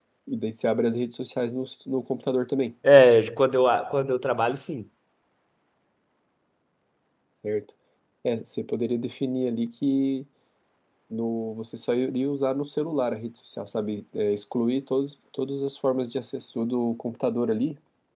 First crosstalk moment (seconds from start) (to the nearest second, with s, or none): none